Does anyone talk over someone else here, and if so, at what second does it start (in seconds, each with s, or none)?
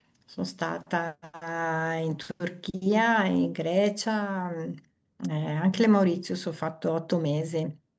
none